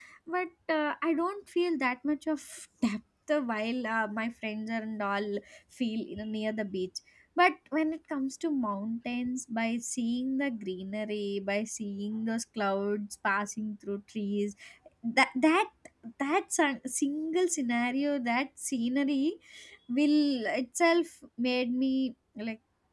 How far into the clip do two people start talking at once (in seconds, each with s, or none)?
none